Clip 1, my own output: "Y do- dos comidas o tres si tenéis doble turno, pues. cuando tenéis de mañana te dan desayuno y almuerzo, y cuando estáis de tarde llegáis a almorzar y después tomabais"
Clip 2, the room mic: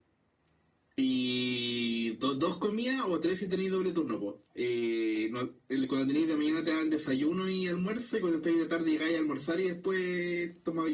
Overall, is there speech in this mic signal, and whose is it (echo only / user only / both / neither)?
echo only